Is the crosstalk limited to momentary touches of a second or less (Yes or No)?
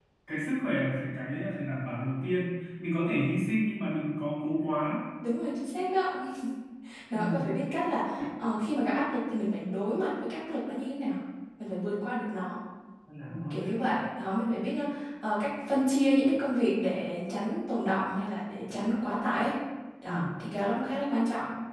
Yes